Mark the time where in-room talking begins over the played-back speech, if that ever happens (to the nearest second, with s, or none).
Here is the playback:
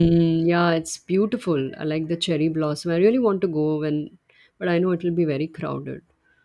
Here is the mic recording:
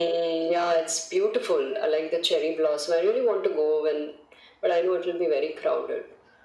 none